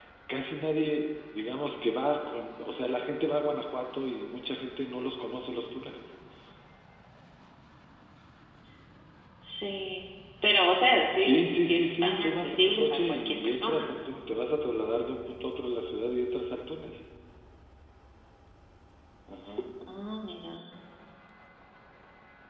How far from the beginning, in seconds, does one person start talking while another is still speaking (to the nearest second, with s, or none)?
11 s